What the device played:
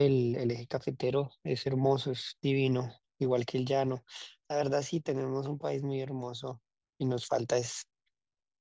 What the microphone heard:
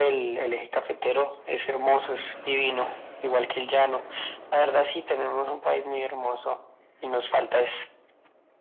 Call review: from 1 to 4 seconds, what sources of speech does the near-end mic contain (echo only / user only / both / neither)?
echo only